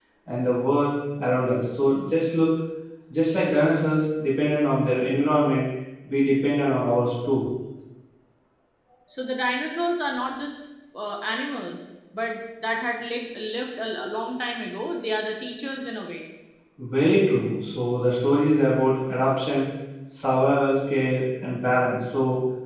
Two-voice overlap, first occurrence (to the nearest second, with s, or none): none